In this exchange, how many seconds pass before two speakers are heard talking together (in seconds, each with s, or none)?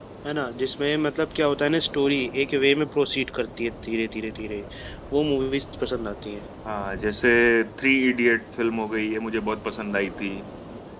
none